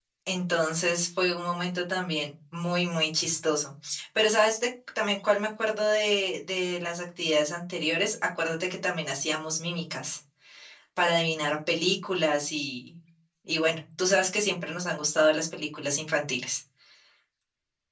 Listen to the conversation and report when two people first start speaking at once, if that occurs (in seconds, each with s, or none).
none